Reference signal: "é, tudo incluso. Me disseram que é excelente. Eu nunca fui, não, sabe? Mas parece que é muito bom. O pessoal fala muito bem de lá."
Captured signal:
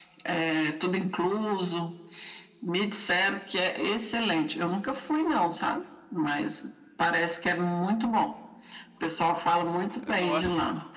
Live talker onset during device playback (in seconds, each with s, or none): 10.0 s